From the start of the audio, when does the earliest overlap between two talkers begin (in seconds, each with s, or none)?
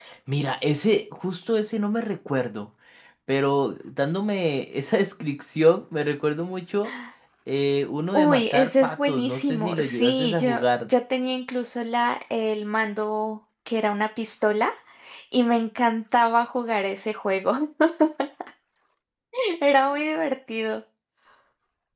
8.1 s